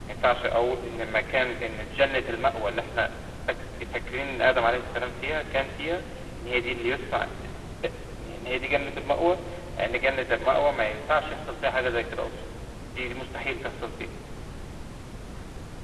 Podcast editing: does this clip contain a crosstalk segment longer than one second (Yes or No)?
No